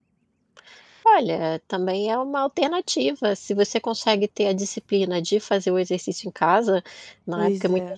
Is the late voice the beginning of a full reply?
No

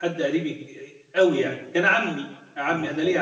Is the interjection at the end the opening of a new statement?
No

